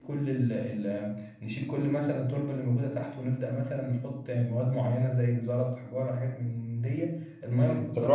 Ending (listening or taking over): taking over